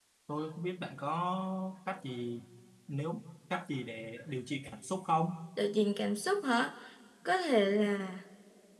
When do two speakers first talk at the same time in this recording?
none

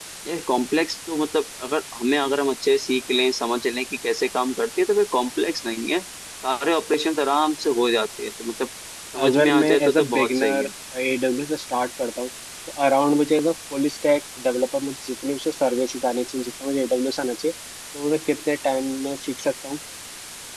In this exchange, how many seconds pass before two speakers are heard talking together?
9.2 s

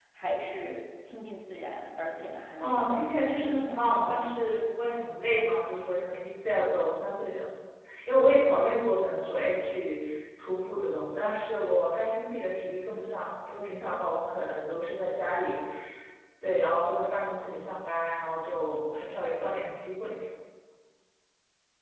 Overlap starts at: 2.6 s

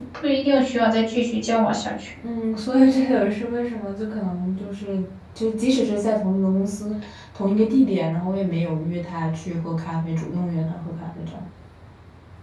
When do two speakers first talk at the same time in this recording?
none

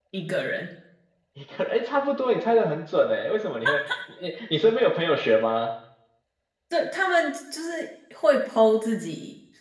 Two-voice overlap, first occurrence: none

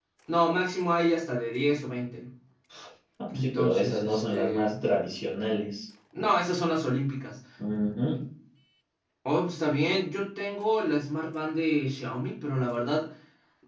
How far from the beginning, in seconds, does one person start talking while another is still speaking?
3.4 s

